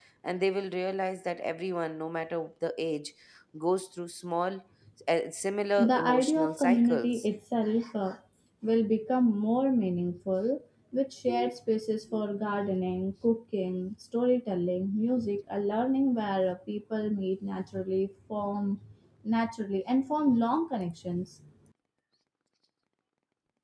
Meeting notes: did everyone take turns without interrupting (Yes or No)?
No